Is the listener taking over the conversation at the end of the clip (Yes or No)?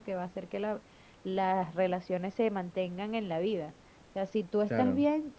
No